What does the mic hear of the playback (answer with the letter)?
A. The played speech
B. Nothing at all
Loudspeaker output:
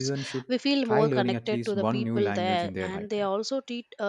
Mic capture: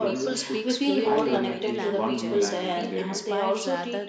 A